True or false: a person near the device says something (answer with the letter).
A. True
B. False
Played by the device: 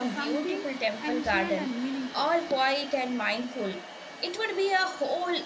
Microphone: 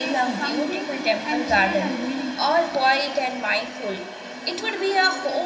A